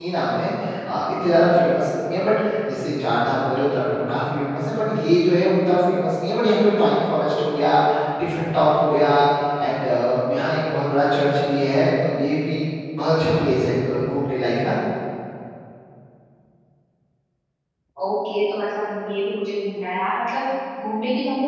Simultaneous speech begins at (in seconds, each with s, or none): none